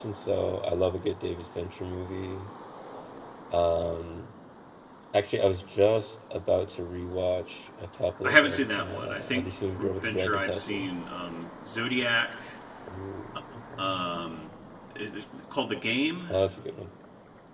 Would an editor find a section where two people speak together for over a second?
Yes, from 8.2 s

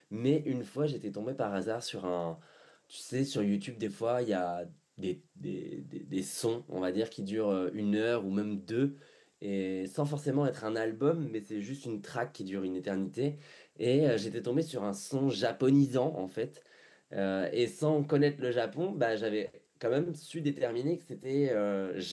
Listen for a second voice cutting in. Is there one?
No

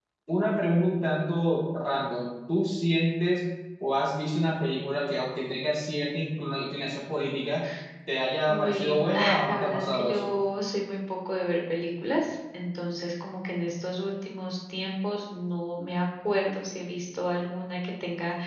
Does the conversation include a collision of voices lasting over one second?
Yes, from 8.5 s

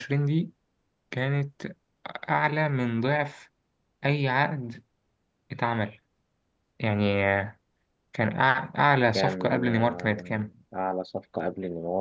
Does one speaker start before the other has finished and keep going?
Yes, from 9.2 s

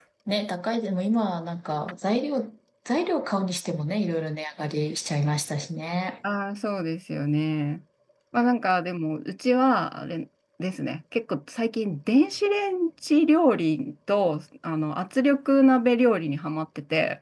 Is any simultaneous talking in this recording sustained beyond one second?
No

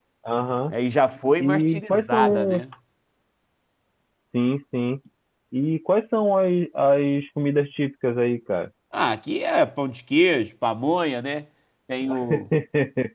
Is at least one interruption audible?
Yes, from 1.4 s

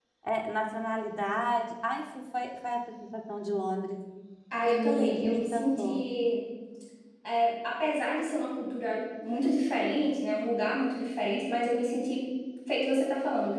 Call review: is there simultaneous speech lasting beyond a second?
Yes, from 4.6 s

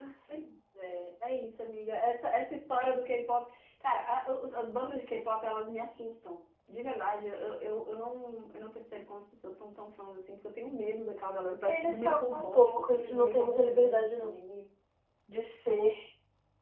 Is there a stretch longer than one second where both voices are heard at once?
Yes, from 11.7 s

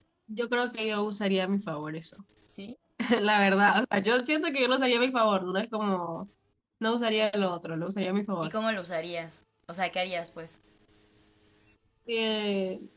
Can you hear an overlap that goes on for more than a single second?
No

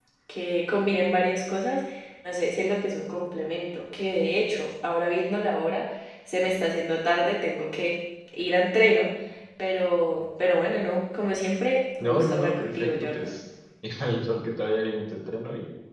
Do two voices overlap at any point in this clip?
Yes, from 12.0 s

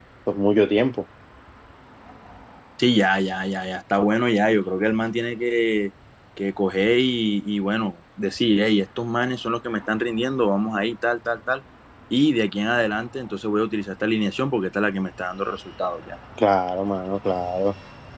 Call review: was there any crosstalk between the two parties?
No

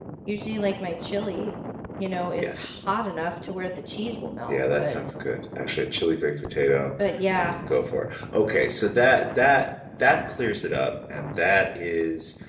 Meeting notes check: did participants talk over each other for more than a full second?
No

